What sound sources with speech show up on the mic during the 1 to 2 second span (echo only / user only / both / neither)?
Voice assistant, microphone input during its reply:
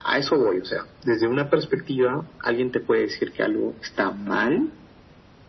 echo only